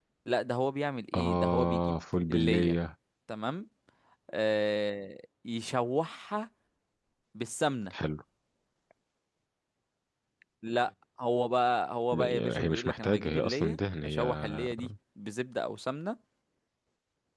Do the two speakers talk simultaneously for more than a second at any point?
Yes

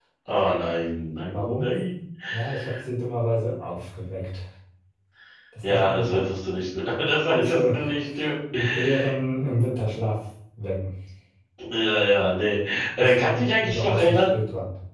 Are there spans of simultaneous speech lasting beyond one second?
Yes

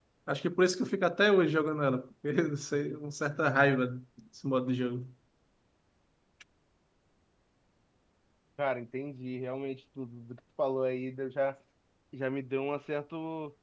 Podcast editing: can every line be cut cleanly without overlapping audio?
Yes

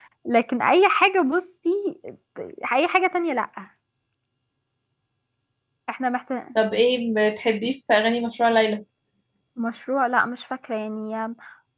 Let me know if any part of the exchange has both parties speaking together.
No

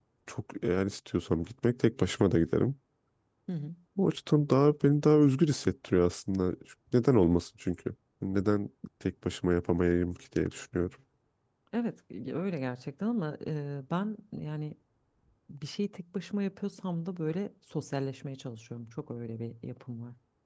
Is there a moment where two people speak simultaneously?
No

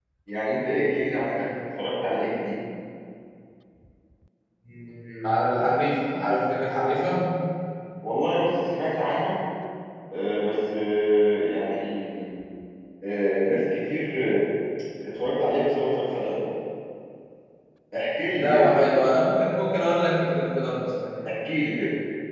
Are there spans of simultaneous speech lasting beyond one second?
No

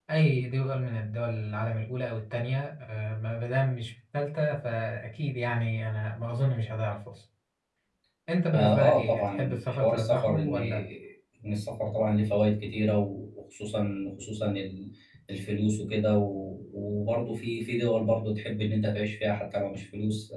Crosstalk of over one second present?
Yes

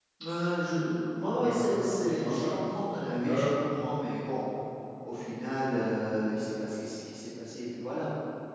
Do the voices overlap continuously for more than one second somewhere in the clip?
Yes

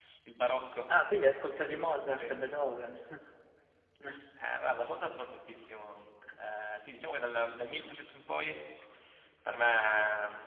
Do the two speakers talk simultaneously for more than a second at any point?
No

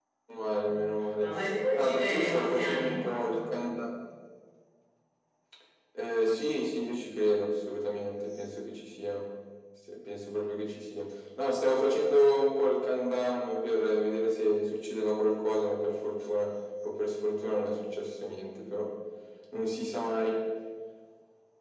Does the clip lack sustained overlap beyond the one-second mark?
No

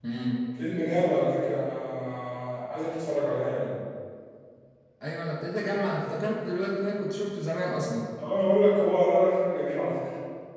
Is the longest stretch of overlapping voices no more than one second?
Yes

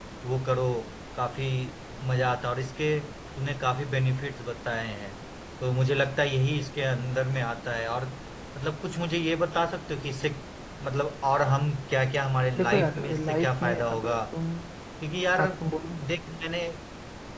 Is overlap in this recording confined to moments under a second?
No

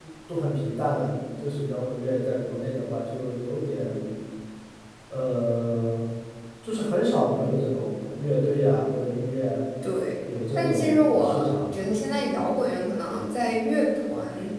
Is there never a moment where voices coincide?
No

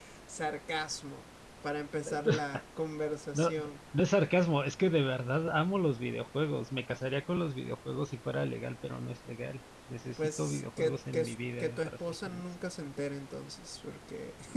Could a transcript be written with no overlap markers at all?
No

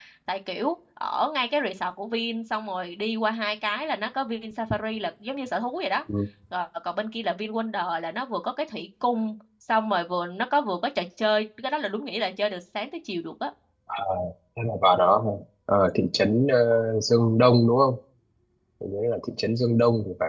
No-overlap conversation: Yes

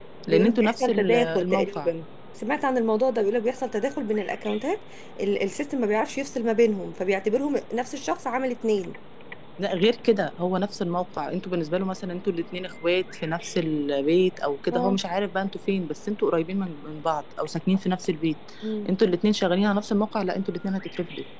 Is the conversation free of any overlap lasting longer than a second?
No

